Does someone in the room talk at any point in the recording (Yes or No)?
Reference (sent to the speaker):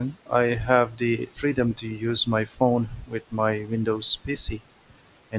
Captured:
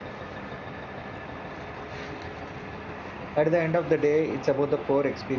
Yes